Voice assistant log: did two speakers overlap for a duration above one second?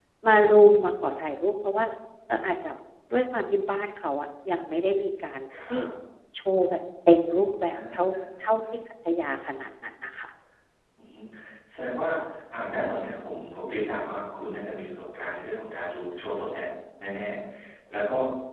No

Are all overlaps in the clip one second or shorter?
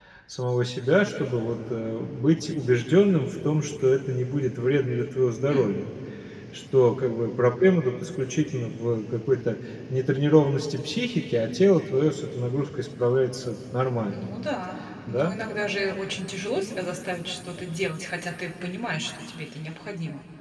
Yes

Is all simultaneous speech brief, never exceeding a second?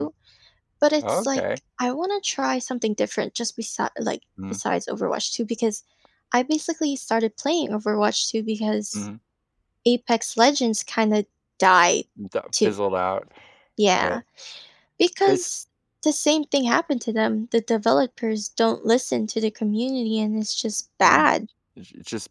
Yes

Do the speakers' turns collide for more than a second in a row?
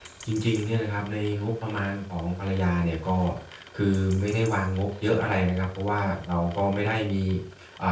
No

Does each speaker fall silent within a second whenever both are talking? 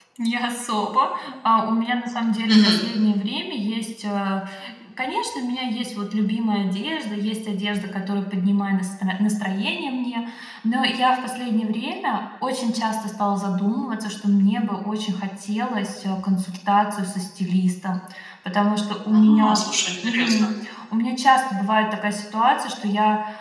Yes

